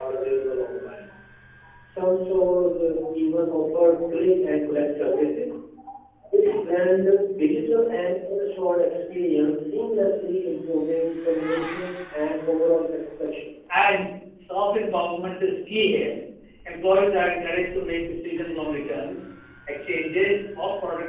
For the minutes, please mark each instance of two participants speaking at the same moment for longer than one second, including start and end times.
none

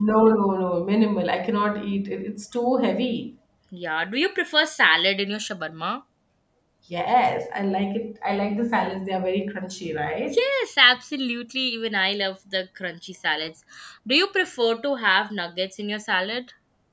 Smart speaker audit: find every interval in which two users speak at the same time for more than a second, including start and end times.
none

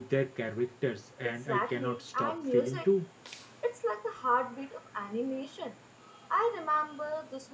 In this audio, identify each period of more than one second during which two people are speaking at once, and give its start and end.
1.2-2.9

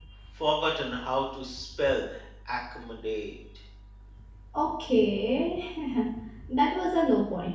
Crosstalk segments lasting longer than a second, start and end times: none

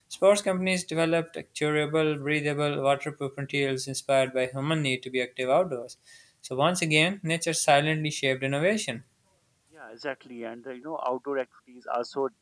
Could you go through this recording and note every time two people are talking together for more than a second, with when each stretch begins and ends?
none

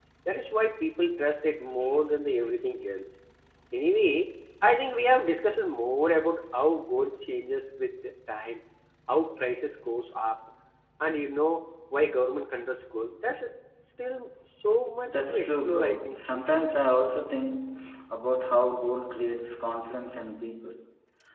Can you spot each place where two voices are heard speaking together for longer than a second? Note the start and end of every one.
15.1-16.4

